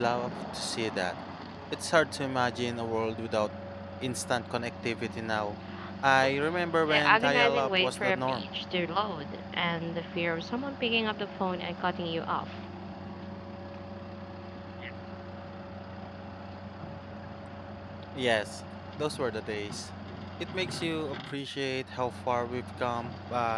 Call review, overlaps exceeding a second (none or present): present